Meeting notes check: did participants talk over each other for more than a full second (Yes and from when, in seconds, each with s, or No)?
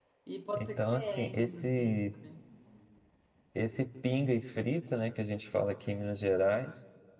Yes, from 0.6 s